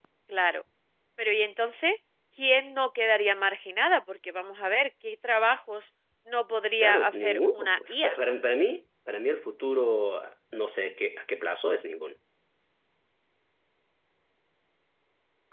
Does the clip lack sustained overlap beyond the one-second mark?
No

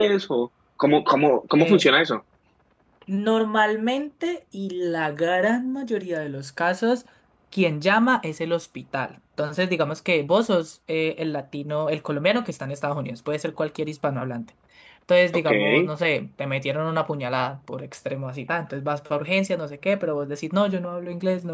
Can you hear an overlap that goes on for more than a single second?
No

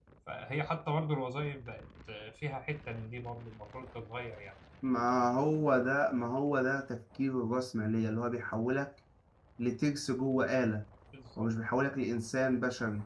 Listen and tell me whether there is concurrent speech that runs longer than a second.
No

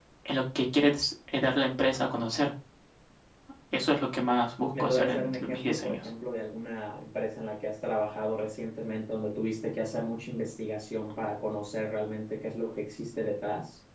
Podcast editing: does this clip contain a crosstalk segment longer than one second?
Yes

